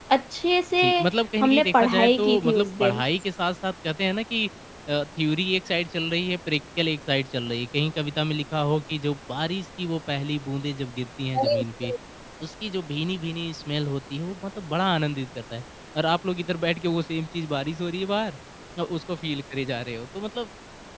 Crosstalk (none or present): present